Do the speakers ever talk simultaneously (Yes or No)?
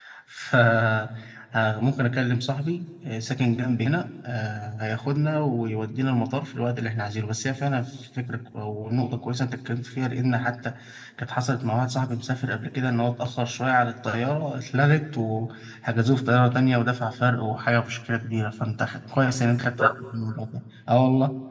No